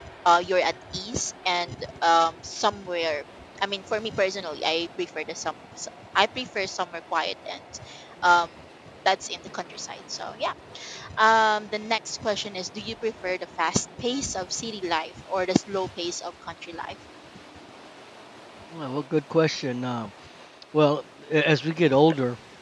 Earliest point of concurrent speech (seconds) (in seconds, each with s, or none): none